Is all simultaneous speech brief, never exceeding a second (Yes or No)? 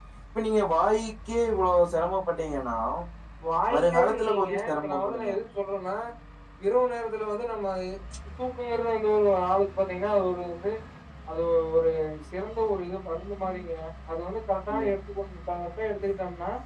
No